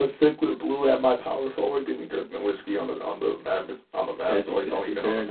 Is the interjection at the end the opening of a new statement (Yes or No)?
Yes